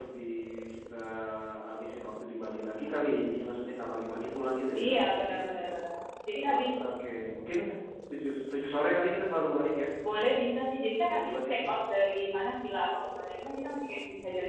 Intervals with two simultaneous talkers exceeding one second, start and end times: none

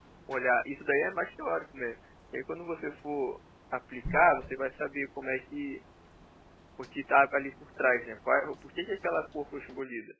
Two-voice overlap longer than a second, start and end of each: none

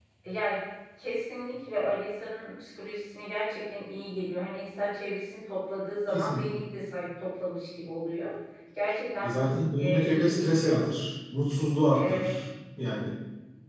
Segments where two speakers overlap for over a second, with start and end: 9.2-10.8

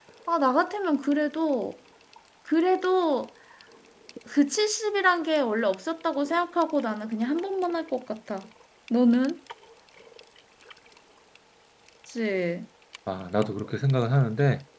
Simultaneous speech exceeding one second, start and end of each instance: none

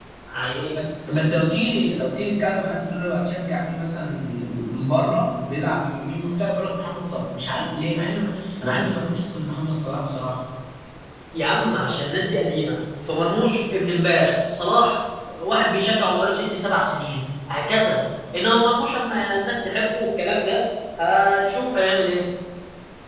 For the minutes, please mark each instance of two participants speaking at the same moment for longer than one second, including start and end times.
none

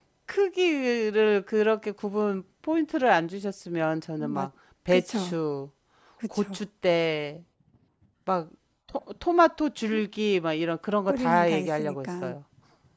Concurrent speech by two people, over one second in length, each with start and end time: 11.1-12.3

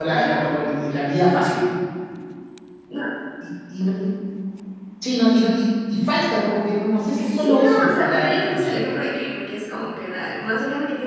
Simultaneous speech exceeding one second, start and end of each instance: 7.2-8.8

